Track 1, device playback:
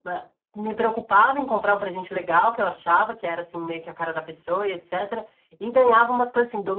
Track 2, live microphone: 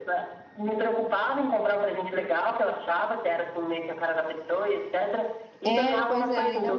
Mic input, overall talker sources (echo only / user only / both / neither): both